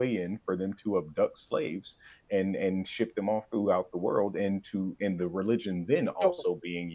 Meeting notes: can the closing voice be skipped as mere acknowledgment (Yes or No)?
Yes